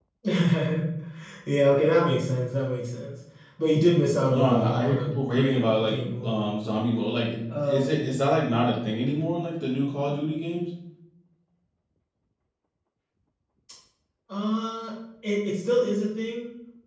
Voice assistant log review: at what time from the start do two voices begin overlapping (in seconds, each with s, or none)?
4.3 s